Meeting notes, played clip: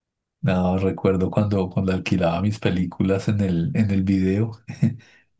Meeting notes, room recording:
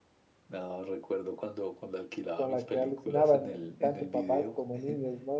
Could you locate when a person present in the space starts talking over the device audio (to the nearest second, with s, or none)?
2 s